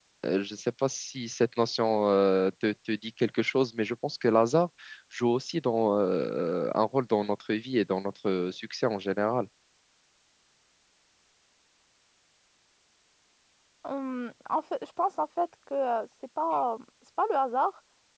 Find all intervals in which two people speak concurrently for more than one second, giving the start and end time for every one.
none

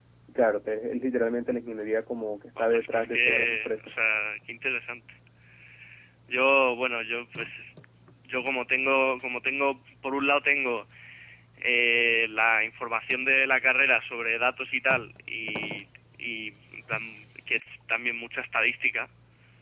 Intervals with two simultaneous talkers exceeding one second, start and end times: 2.6-3.8

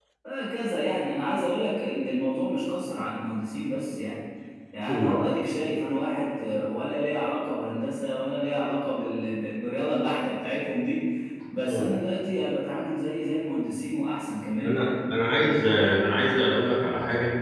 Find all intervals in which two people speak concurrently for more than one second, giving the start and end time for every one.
none

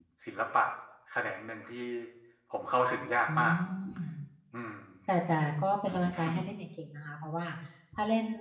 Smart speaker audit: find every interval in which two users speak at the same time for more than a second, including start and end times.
none

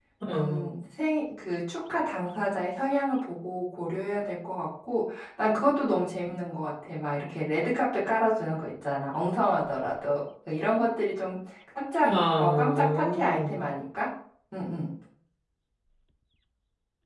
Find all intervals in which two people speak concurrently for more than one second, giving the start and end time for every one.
12.0-13.6

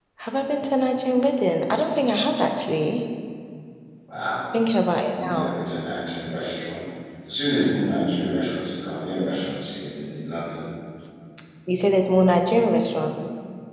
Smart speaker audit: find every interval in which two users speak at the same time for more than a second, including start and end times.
none

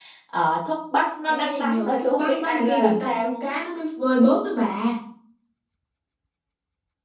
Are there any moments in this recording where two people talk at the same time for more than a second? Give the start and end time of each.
1.4-3.5

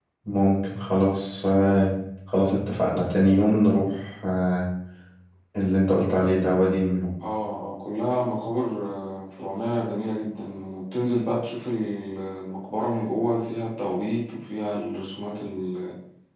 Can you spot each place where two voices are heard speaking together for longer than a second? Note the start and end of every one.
none

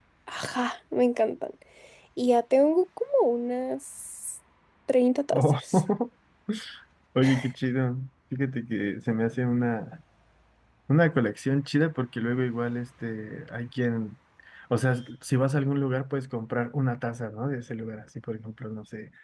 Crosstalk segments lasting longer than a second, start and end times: none

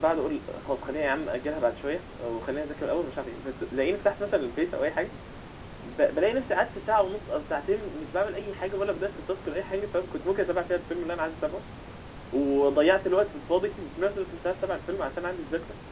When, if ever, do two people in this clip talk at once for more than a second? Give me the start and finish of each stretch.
none

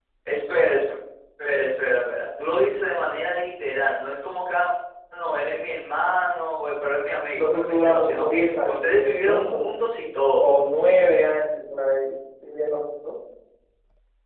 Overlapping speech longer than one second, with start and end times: 7.3-9.6

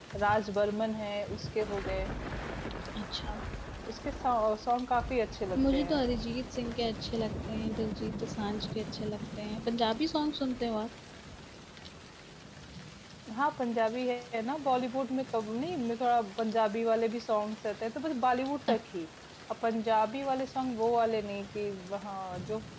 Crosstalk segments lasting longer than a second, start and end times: none

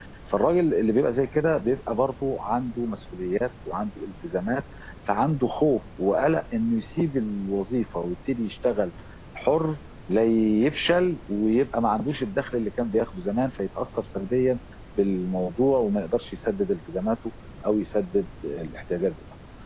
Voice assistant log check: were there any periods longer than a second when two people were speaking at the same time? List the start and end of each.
none

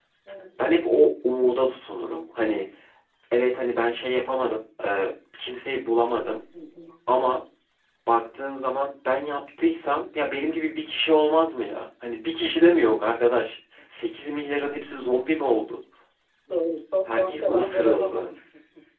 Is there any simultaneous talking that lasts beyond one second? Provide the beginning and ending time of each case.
17.1-18.3

